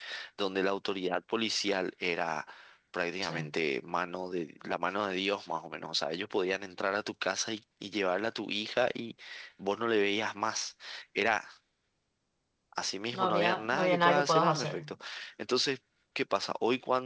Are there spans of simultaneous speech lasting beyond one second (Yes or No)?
Yes